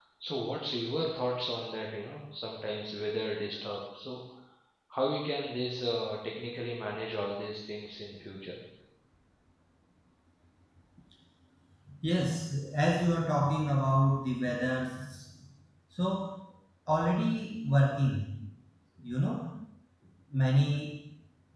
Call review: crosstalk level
none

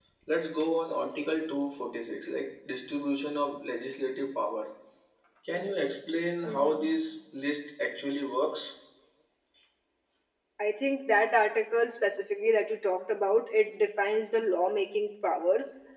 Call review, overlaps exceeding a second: none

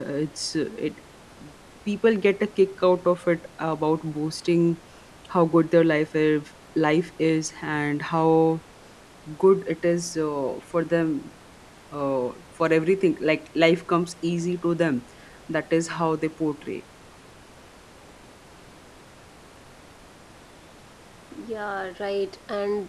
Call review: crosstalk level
none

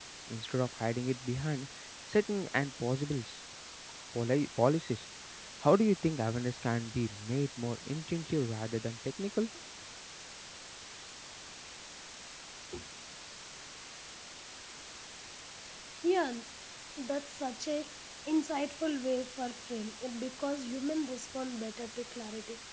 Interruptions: none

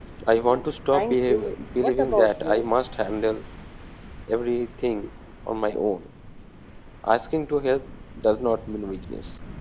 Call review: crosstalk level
present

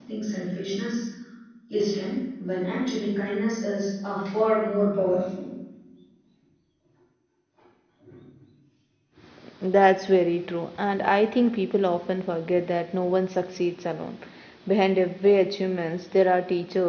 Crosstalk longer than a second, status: none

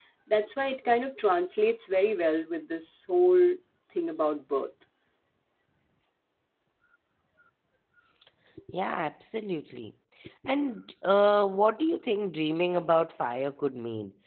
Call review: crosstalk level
none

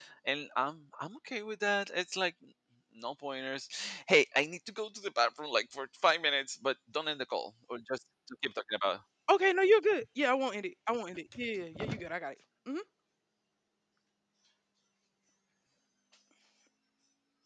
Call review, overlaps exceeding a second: none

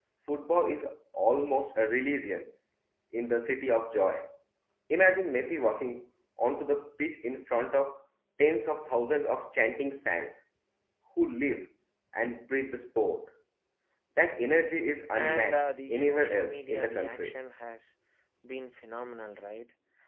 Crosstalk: present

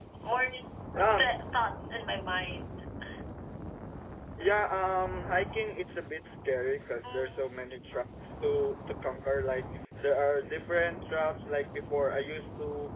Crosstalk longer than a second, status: none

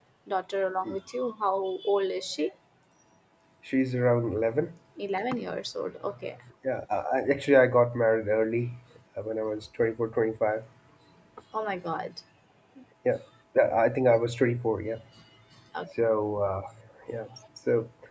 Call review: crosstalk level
none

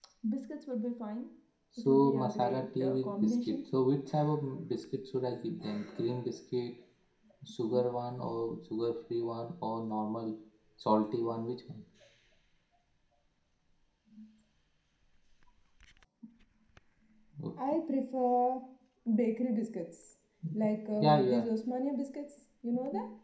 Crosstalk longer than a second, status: present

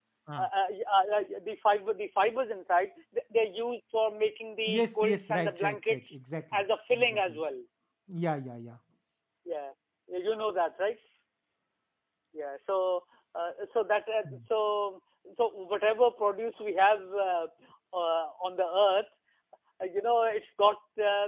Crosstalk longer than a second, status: present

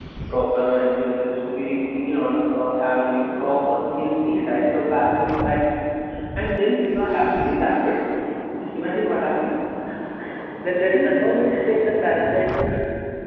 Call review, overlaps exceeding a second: none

